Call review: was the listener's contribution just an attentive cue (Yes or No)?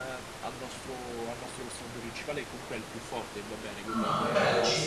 No